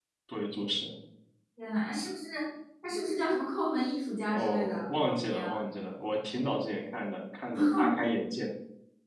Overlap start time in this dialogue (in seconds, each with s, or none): 4.3 s